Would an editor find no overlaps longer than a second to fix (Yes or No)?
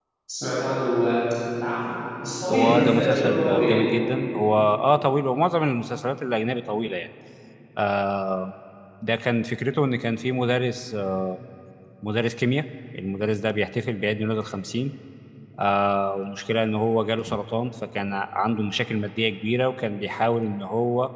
No